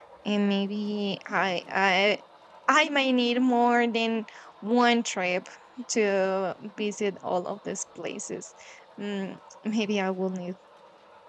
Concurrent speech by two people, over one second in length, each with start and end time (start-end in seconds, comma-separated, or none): none